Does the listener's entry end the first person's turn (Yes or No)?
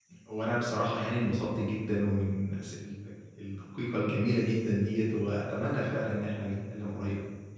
No